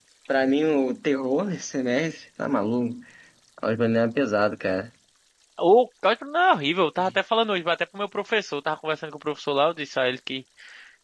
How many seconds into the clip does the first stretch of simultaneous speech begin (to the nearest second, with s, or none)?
none